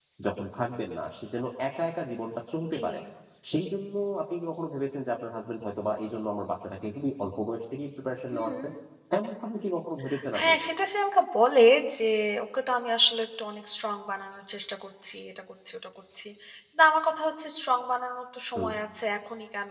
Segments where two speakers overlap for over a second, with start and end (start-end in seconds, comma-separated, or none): none